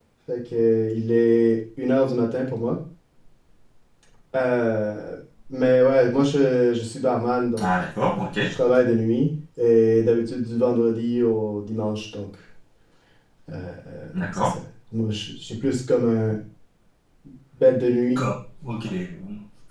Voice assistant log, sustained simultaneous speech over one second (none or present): none